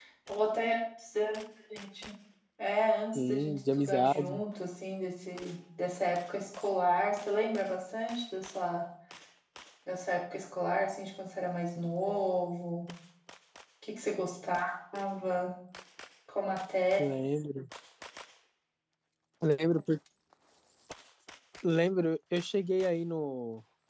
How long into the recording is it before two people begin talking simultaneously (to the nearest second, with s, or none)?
3 s